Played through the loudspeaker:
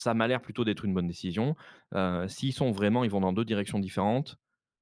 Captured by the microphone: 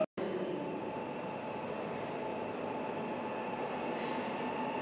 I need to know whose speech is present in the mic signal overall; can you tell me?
neither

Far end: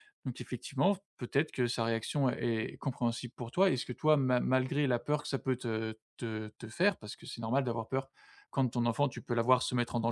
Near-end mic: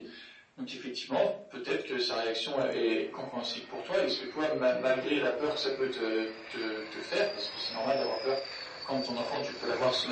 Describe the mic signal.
echo only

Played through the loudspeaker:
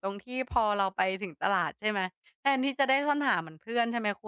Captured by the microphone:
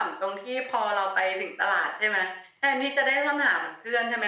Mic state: echo only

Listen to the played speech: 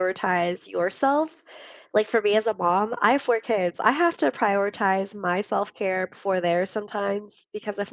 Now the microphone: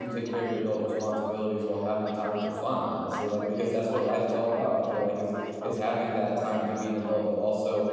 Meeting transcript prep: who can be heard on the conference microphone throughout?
both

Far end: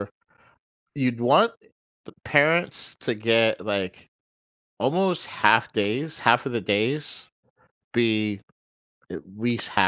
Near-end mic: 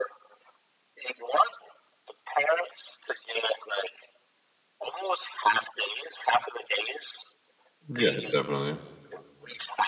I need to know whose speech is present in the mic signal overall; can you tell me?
both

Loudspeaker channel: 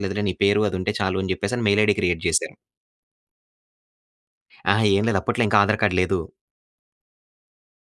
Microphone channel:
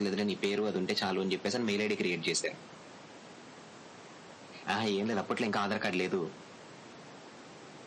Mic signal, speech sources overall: echo only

